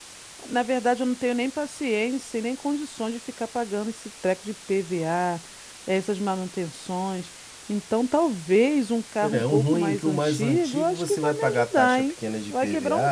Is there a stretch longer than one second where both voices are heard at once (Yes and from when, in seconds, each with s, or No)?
Yes, from 9.2 s